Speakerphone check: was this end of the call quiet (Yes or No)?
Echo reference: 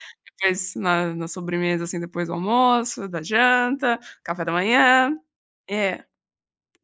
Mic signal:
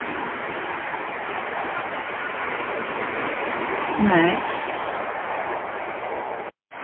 No